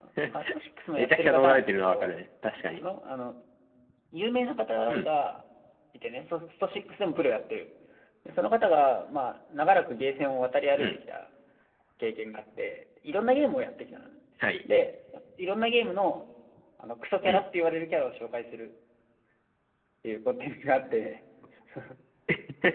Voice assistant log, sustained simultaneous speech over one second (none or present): present